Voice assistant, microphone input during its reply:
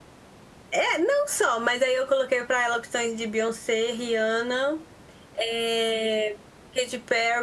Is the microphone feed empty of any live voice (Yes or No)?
Yes